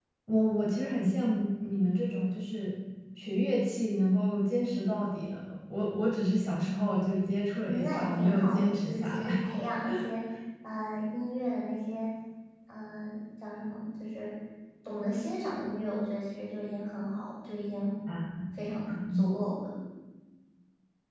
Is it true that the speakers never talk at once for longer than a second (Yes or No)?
No